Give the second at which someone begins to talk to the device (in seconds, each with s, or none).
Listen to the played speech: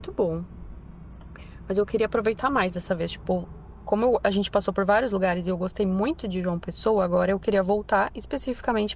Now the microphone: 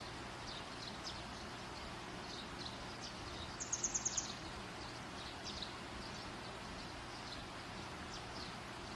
none